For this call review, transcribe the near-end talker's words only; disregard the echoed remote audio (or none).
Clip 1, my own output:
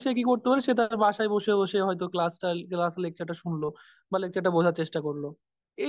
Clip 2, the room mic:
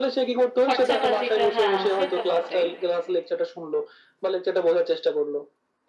খরচাপাতিটা হ্যাঁ সে তো বটেই